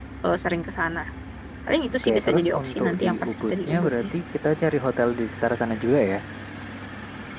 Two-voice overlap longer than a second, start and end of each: 2.0-4.1

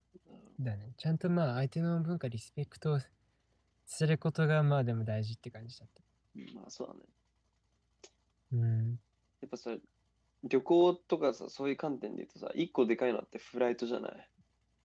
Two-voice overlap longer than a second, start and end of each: none

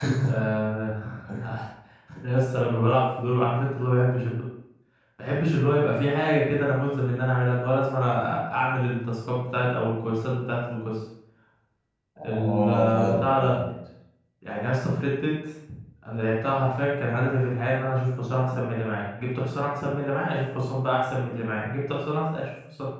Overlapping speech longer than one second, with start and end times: 12.2-13.6

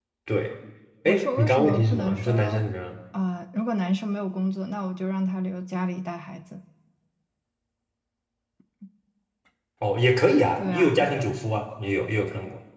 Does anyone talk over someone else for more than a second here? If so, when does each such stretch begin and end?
1.0-2.6

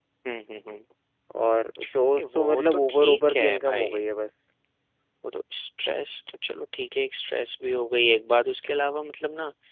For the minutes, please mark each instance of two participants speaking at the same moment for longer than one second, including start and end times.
2.2-4.0

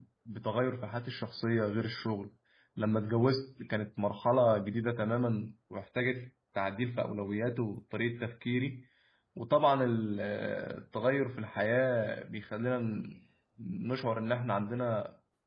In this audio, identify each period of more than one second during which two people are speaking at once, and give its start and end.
none

